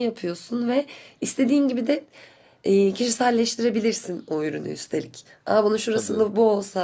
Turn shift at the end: No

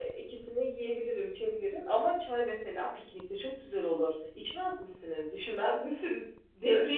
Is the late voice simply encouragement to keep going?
No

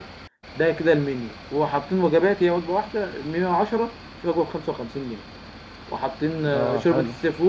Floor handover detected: No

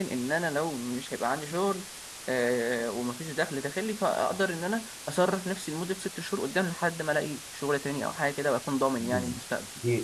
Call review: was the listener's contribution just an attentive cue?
No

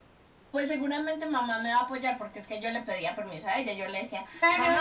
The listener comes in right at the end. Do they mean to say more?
Yes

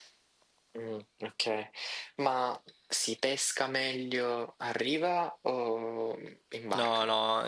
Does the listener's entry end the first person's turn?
Yes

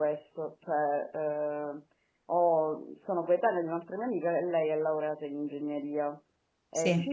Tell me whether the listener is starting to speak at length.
No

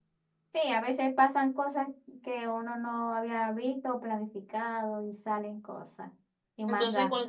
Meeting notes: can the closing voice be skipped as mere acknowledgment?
No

